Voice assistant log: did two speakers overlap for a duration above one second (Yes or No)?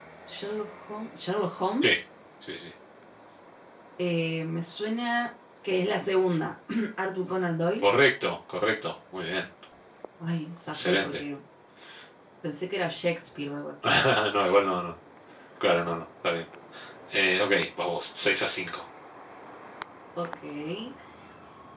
No